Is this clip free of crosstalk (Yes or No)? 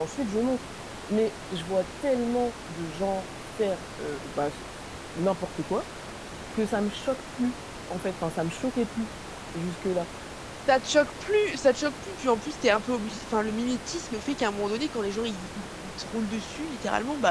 Yes